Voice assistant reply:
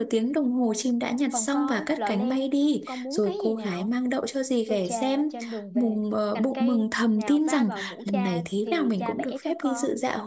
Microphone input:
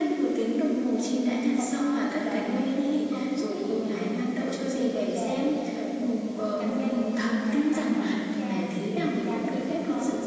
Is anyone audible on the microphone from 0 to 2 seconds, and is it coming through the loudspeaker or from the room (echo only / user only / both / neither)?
echo only